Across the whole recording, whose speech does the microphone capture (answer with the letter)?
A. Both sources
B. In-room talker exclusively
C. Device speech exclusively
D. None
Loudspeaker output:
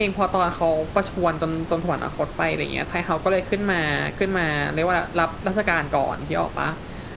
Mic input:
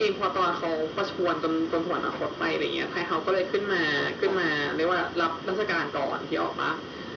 C